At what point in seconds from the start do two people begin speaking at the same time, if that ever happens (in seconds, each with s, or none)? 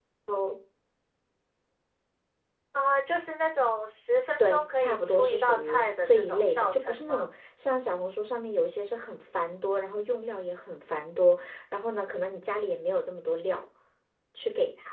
4.4 s